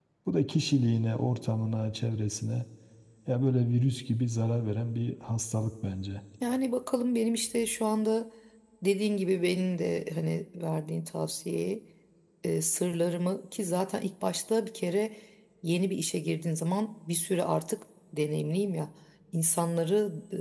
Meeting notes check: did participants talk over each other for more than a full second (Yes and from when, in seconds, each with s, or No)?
No